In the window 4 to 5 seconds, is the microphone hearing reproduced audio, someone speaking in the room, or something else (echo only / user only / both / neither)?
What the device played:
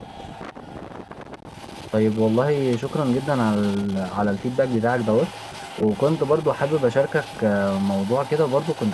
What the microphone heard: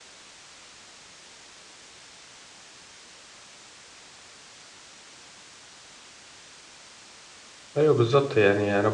neither